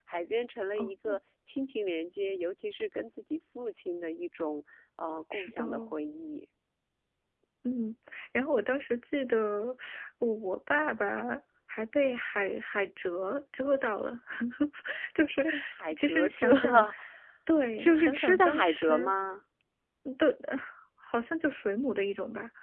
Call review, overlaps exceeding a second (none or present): present